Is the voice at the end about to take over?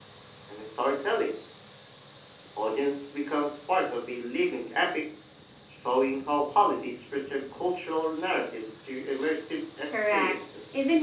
Yes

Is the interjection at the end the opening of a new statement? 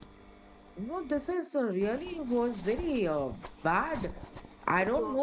No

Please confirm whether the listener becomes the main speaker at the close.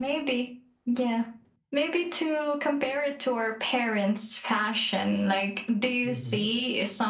No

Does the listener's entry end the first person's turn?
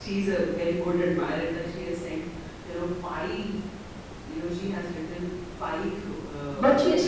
Yes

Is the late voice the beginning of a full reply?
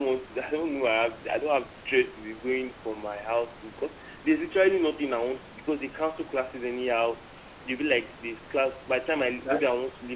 No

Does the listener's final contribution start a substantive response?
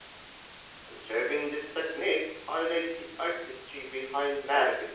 Yes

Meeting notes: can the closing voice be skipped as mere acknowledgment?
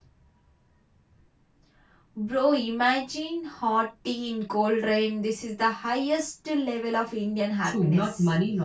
No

